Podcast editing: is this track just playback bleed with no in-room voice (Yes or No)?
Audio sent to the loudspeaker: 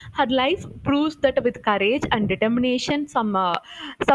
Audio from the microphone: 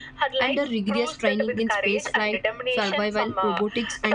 No